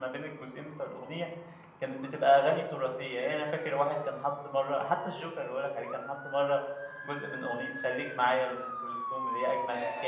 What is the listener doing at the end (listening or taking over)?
listening